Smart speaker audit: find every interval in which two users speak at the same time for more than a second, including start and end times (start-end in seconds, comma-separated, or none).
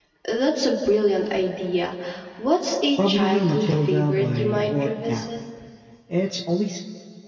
3.0-5.3